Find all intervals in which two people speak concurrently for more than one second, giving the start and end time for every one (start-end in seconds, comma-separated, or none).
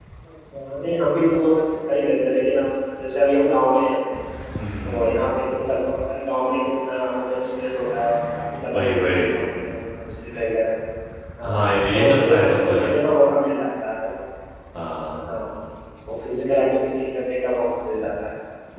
11.4-12.9